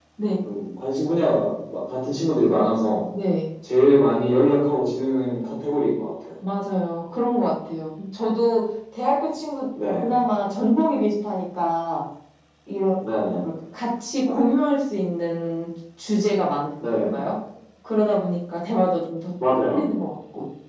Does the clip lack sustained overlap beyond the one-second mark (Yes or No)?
Yes